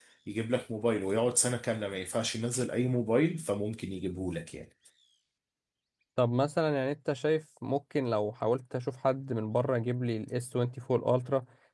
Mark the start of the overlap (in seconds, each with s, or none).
none